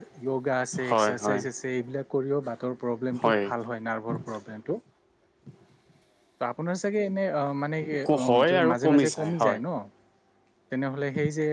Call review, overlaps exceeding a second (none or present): present